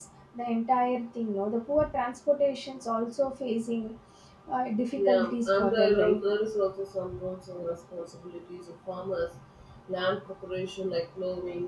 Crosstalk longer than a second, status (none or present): present